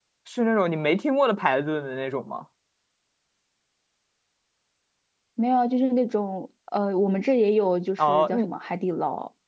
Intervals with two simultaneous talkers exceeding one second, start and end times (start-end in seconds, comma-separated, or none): none